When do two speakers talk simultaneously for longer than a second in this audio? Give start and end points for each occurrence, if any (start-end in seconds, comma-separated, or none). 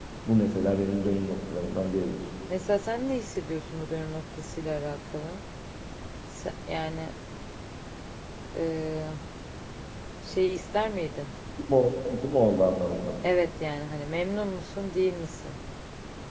none